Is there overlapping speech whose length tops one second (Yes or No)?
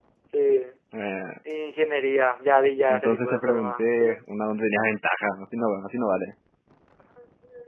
Yes